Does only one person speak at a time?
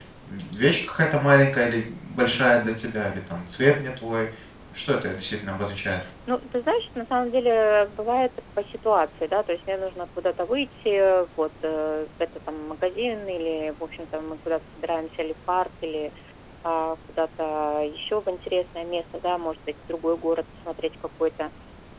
Yes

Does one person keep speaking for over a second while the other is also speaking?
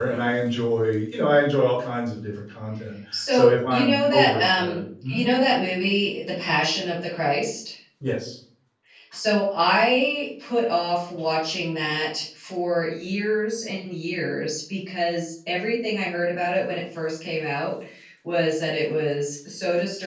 Yes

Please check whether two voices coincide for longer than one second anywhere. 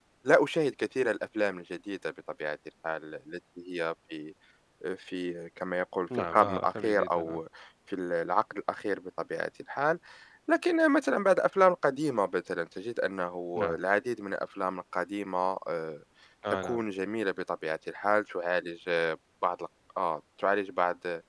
Yes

